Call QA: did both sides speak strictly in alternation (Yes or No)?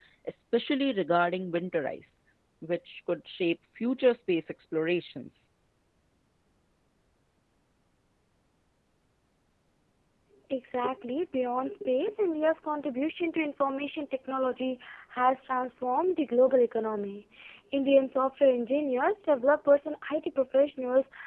Yes